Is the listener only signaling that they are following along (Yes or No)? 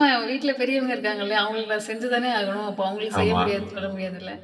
Yes